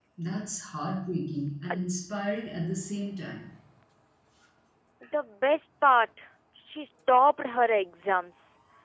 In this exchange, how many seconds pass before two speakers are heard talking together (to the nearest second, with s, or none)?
none